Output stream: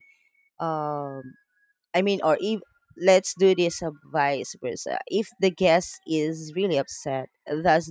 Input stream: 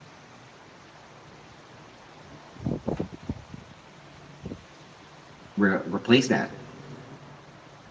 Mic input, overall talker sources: user only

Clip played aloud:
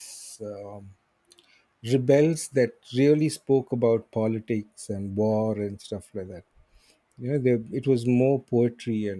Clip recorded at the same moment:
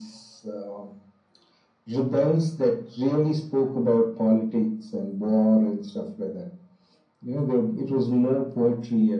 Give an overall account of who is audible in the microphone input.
echo only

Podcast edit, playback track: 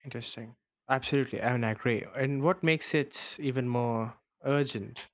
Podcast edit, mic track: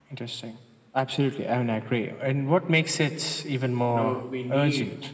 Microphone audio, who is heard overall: both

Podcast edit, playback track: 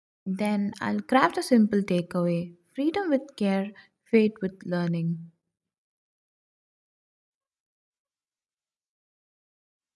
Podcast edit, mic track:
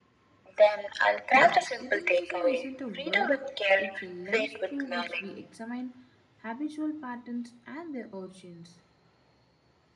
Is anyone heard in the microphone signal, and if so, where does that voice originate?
both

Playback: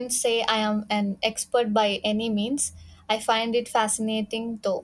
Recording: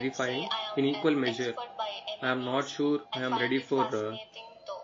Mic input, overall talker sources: both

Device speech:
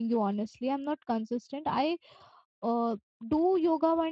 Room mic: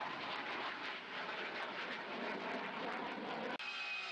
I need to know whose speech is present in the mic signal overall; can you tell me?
neither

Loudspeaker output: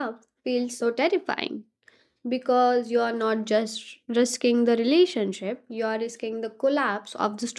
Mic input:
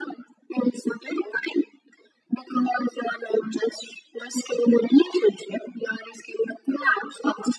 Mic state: echo only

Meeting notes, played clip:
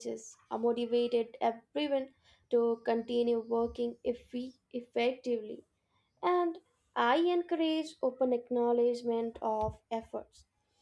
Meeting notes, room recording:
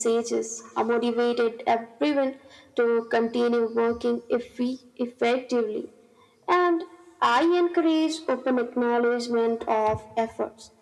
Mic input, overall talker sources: echo only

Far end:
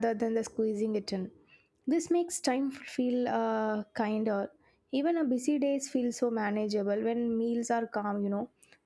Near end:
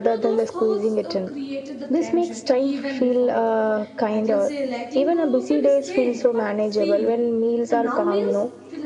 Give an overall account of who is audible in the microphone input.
both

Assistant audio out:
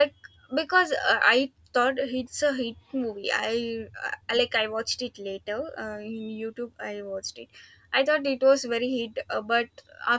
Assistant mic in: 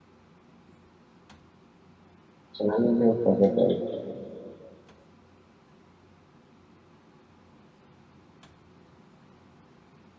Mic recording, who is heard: user only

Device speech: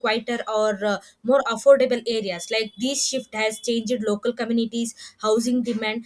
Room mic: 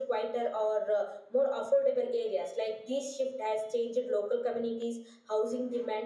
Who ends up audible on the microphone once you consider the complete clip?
echo only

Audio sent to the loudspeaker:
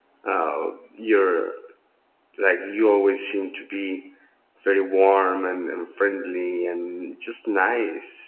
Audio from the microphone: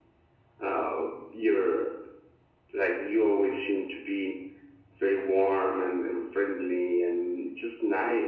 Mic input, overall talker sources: echo only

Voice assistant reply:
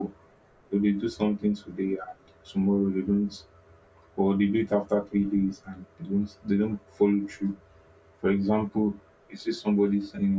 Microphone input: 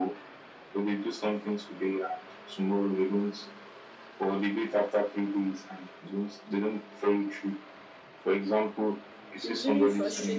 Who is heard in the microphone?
both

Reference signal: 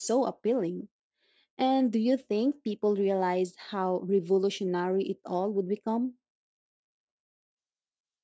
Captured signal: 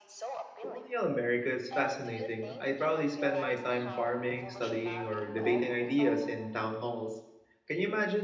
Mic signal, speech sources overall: both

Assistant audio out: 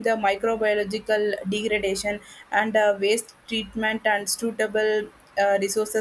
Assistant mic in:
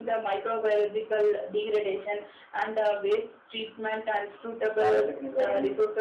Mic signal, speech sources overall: both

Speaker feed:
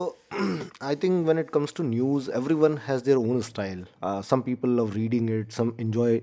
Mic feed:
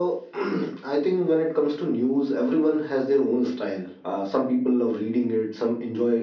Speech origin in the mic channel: echo only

